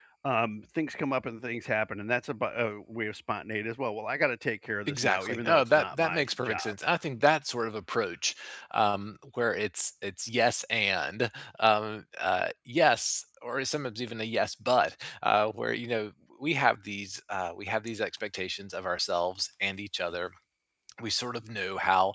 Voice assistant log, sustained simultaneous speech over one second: present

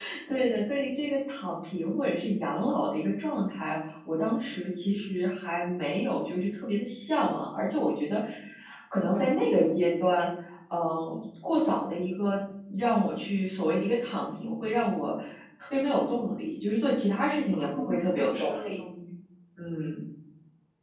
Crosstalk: present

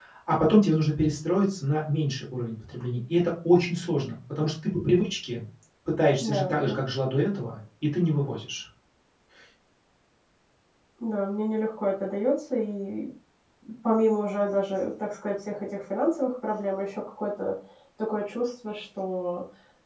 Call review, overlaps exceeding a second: none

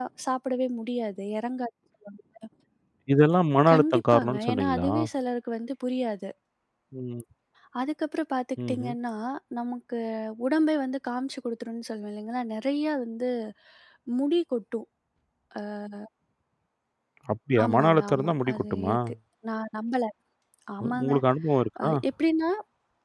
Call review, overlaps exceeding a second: present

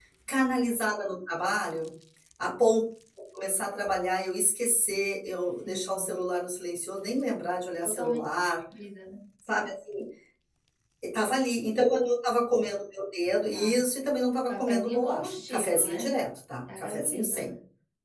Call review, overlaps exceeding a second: present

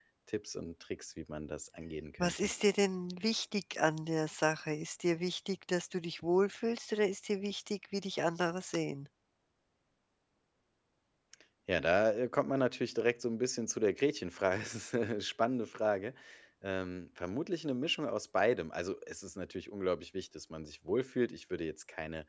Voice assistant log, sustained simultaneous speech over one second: none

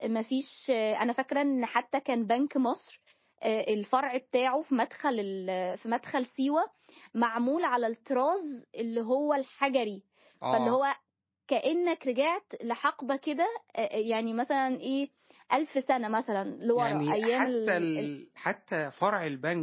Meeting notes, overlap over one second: present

